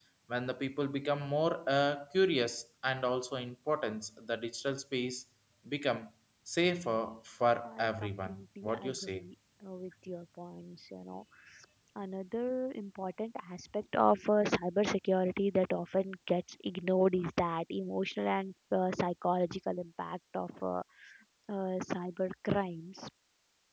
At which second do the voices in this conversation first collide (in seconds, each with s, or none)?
7.7 s